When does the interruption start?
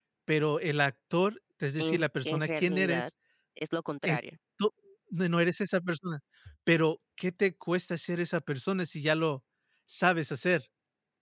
1.8 s

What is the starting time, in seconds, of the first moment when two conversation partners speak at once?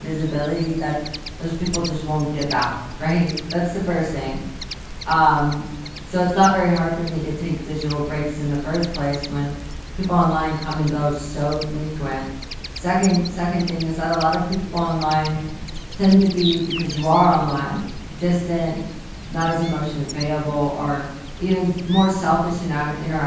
none

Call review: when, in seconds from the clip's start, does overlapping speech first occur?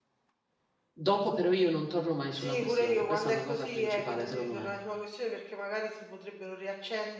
2.3 s

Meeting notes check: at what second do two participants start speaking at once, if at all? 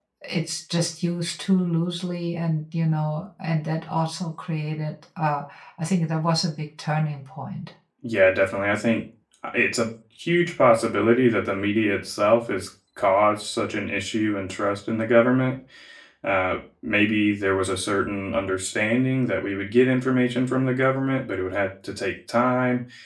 none

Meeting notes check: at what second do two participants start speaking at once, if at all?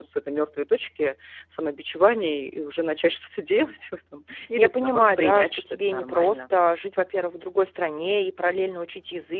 4.6 s

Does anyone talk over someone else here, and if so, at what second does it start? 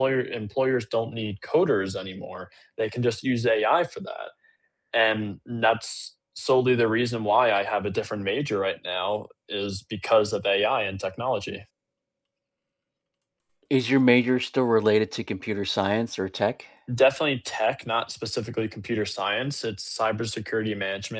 none

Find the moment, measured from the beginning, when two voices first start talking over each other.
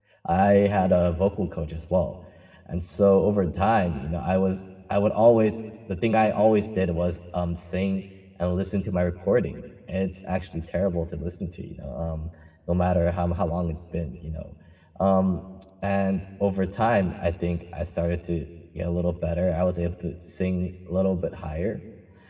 none

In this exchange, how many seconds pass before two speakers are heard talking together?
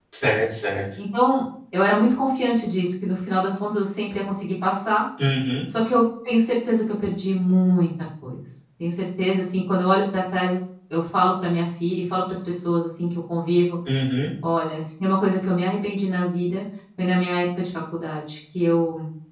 none

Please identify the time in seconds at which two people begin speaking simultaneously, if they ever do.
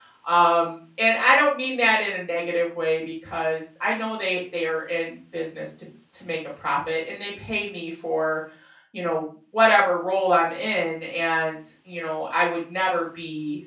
none

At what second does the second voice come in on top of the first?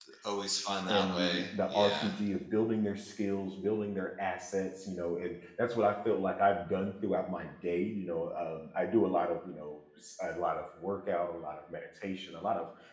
0.9 s

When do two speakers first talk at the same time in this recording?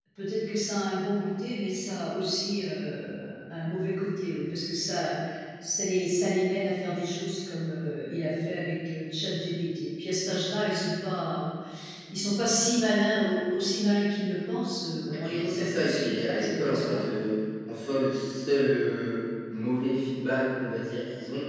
15.2 s

